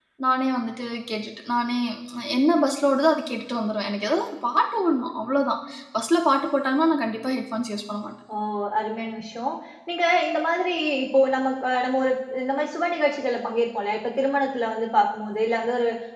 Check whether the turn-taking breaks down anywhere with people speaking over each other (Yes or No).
No